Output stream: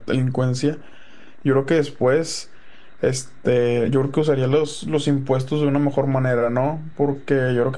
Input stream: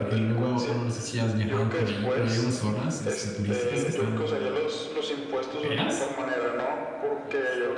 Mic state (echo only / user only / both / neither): both